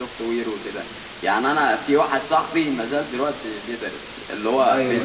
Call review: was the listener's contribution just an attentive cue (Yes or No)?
Yes